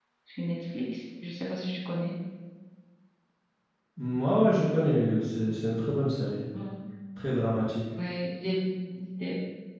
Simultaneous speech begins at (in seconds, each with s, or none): none